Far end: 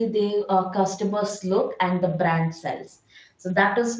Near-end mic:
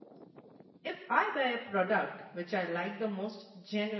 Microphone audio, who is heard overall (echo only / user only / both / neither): user only